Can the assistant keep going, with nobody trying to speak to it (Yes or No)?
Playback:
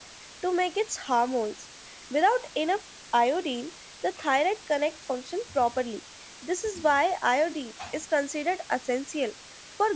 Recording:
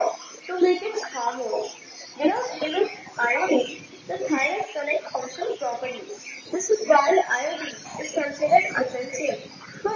Yes